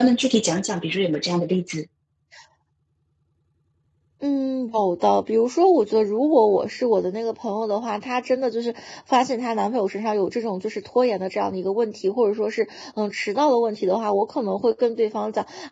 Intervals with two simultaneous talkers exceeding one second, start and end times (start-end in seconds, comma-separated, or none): none